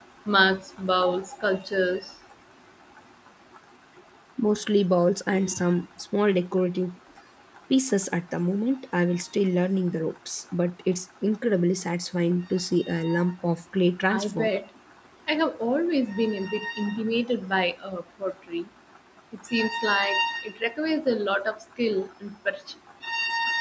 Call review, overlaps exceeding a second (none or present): none